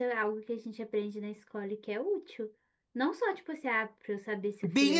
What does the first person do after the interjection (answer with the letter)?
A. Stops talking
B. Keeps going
A